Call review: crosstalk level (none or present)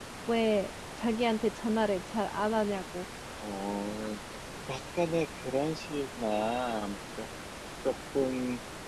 none